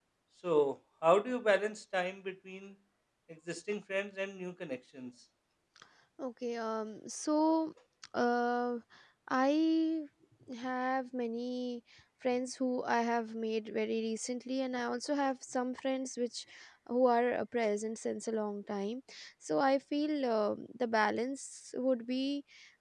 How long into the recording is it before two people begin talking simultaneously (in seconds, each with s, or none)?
none